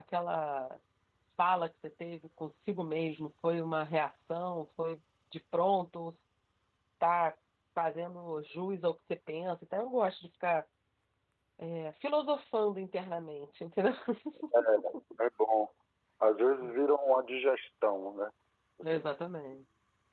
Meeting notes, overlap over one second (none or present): none